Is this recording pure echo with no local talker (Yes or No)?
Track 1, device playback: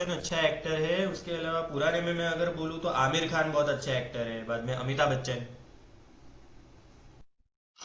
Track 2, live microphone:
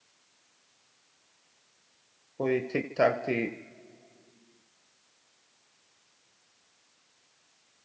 No